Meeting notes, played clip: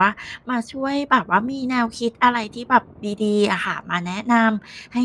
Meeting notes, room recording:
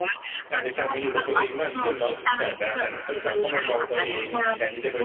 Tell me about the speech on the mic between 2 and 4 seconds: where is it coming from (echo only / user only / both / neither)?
both